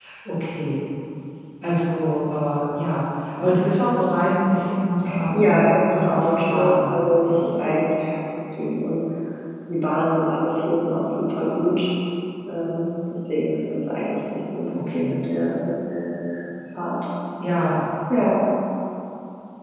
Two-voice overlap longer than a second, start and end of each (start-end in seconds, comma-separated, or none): 5.3-7.6